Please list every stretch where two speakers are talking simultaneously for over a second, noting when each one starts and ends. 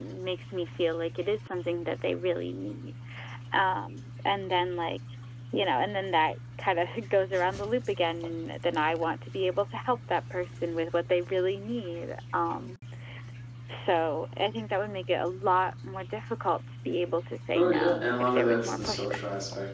17.5-19.2

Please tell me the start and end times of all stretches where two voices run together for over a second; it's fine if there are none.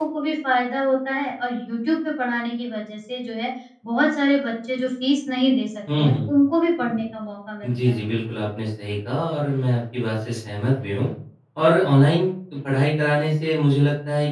none

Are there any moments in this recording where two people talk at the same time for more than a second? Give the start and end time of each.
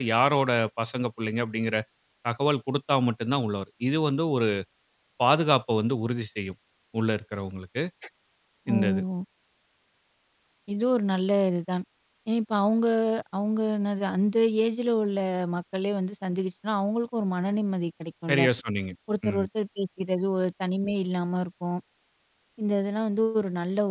none

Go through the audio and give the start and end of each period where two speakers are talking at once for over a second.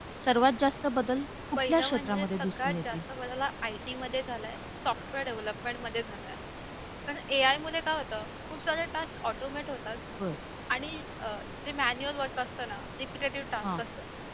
1.7-3.0

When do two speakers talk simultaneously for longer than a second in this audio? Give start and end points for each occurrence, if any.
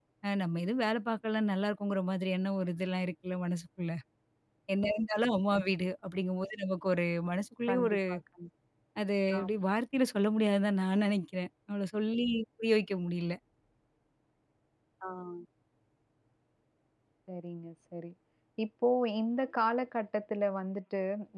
none

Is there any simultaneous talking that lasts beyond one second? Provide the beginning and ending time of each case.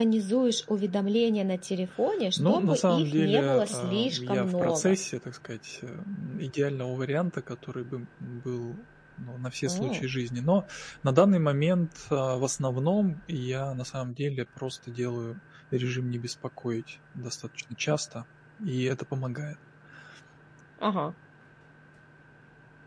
2.4-4.9

